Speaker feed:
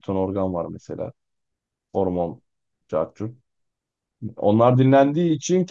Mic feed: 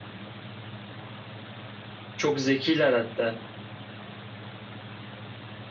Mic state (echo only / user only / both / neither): user only